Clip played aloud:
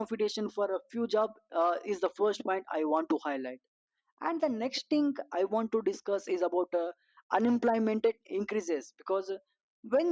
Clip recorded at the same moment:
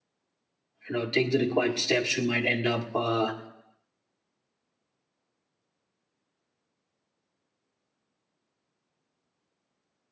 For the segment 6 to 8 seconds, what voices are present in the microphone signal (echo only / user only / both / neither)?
neither